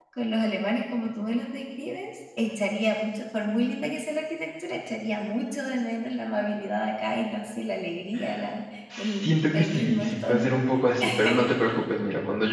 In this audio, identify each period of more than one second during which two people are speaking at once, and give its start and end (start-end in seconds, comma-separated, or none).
9.2-10.5